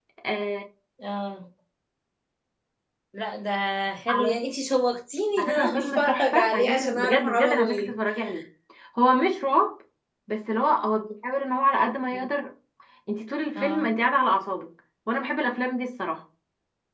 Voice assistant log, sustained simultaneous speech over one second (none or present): present